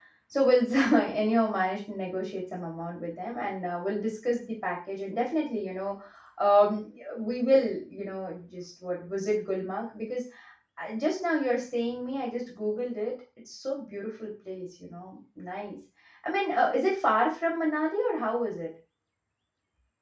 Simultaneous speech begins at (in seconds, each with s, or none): none